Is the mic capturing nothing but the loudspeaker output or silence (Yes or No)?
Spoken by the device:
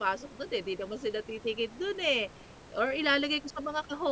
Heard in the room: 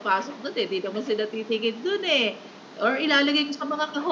Yes